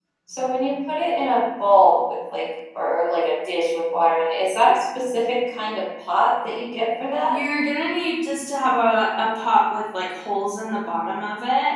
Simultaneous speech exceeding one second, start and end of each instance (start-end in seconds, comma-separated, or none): none